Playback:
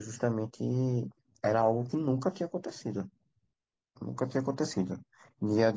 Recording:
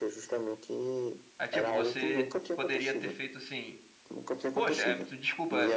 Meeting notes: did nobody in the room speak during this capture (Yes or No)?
No